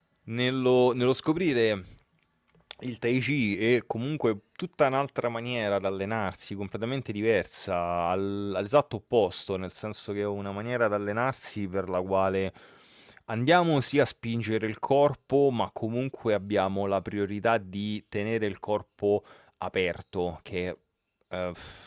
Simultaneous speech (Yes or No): No